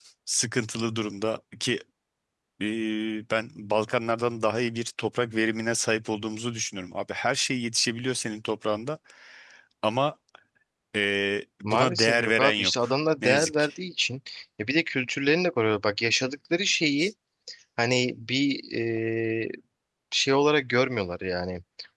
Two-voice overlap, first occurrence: 11.6 s

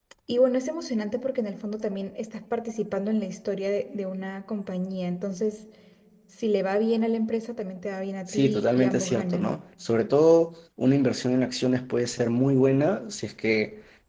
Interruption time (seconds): 8.3 s

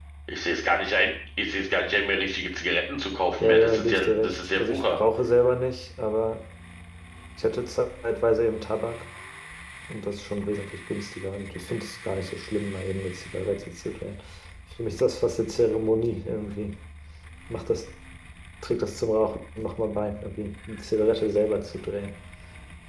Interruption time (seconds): 3.4 s

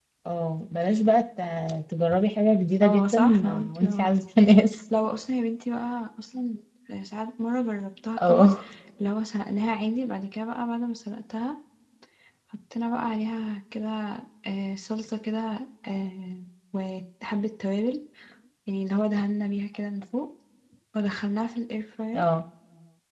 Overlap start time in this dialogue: 2.8 s

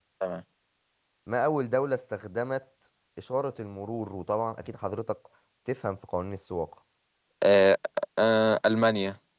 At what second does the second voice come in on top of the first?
none

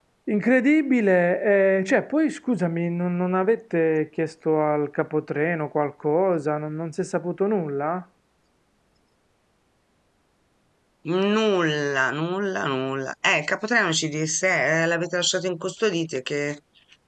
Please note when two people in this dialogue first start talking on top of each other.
none

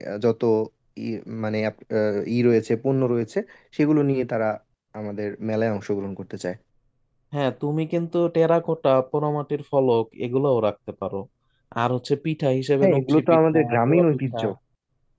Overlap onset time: 12.8 s

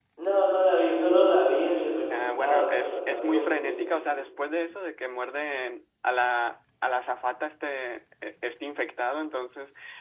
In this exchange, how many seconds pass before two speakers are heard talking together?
2.1 s

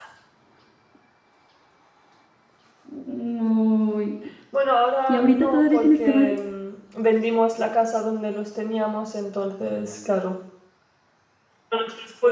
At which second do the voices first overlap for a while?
5.1 s

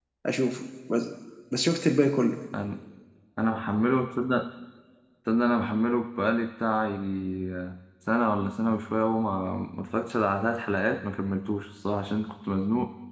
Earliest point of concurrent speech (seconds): none

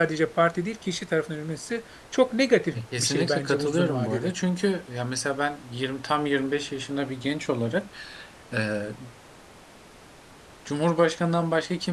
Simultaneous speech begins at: 2.7 s

